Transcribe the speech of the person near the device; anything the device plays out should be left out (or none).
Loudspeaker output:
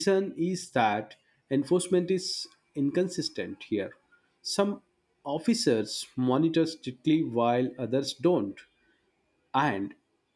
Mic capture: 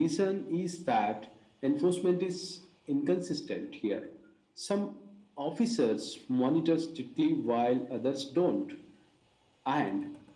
none